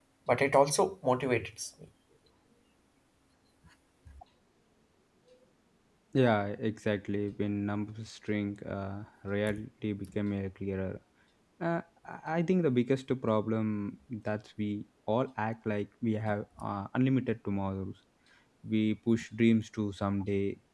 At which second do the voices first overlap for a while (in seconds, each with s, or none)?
none